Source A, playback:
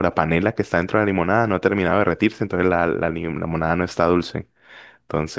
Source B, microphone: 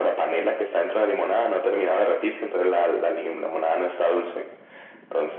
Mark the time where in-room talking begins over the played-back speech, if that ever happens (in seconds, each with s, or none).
none